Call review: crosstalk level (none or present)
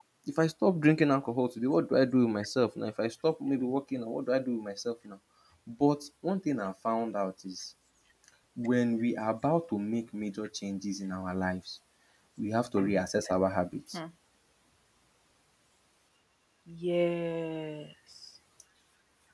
none